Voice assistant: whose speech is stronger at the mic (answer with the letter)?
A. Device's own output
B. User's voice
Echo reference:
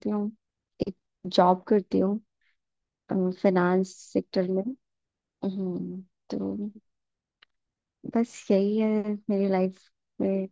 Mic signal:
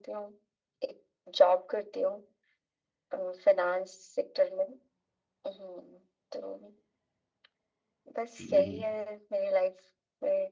A